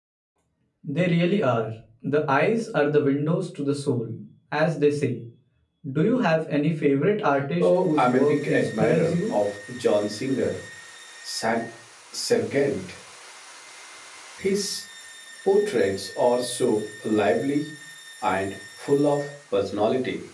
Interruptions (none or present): present